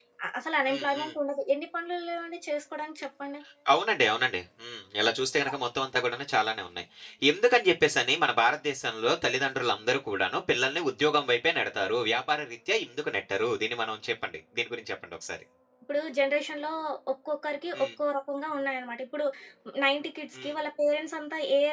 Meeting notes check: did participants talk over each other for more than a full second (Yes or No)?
No